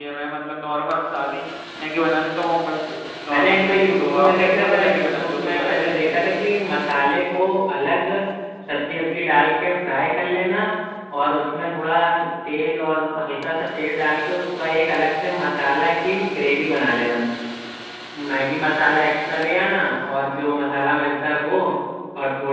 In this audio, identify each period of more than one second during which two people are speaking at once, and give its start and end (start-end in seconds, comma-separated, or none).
3.3-6.2